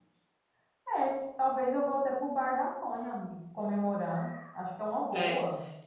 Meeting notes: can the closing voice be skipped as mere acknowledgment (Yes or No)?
No